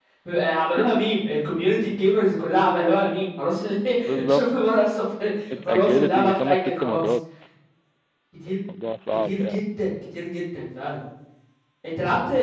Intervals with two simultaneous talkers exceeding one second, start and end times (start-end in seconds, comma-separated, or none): 5.6-7.0